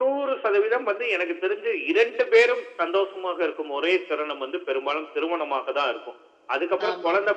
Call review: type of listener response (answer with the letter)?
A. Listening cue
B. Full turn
A